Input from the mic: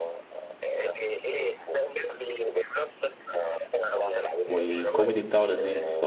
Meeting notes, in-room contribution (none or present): present